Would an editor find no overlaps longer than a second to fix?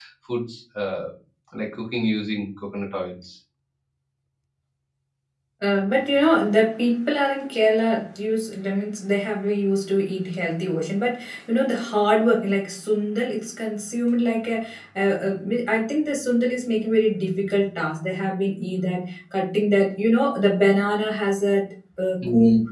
Yes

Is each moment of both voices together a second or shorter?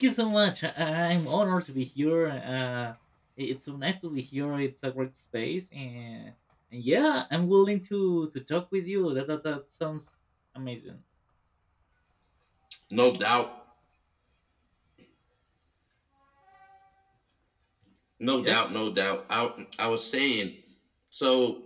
Yes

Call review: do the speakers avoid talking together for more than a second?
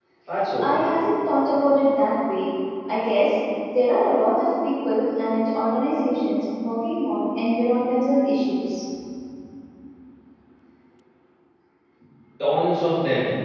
Yes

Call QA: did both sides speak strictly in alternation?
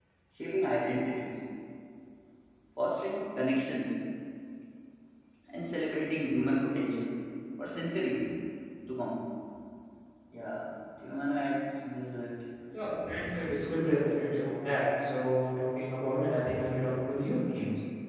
Yes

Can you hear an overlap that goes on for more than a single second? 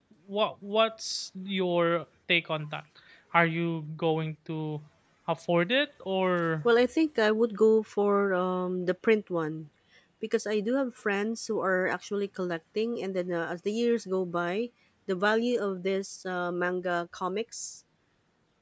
No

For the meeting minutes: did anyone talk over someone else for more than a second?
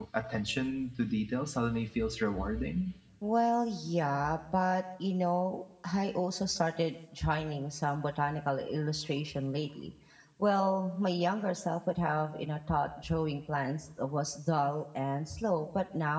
No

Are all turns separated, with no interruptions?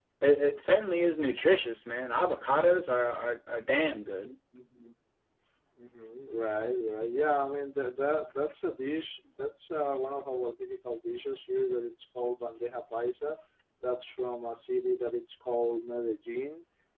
Yes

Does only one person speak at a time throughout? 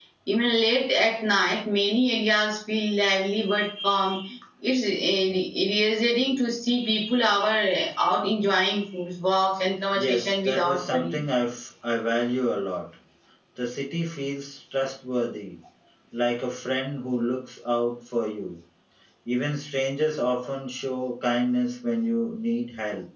No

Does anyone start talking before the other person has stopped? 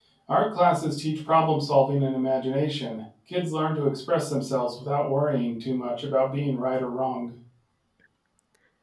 No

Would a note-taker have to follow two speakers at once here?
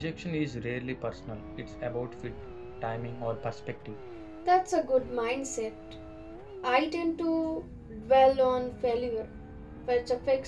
No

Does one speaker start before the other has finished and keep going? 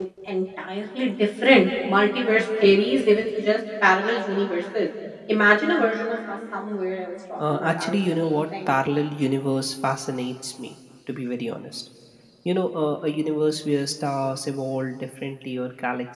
Yes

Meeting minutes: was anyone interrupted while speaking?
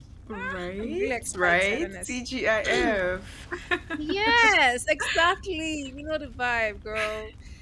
Yes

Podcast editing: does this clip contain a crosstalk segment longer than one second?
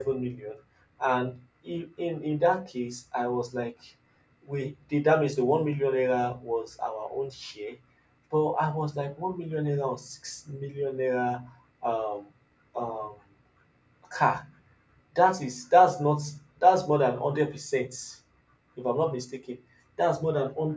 No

